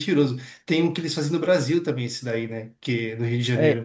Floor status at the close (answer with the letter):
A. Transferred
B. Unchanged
A